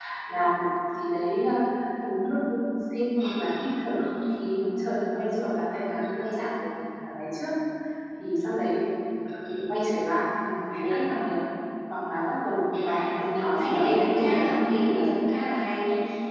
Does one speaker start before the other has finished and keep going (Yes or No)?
Yes